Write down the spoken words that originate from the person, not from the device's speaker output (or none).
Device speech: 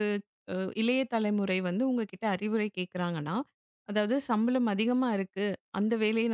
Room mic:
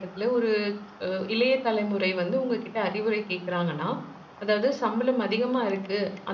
none